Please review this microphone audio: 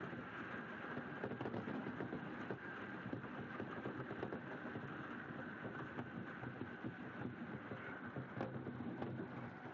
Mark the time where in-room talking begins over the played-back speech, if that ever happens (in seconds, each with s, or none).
none